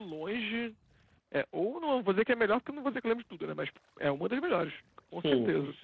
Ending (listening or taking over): taking over